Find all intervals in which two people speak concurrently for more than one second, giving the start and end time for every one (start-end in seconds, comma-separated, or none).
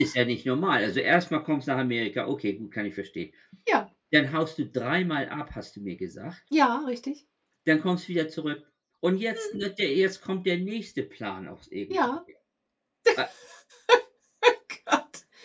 none